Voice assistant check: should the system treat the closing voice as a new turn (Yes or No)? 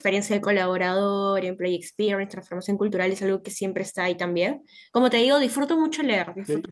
Yes